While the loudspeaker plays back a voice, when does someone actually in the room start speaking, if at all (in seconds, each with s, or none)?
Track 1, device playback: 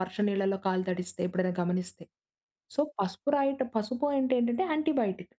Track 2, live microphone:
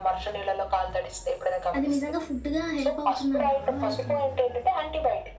1.7 s